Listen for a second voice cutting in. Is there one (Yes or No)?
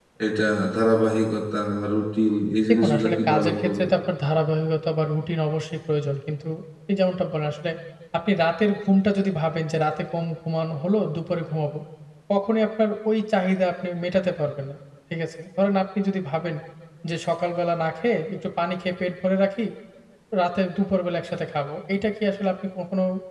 Yes